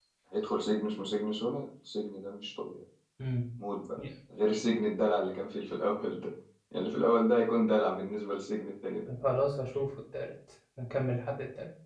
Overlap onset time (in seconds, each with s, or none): none